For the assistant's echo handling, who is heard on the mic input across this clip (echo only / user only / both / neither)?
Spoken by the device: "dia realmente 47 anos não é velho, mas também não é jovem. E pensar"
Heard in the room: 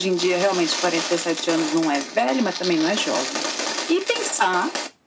echo only